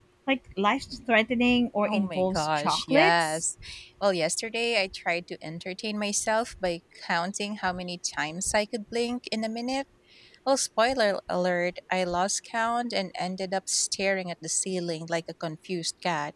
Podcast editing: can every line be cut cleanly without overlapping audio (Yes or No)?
No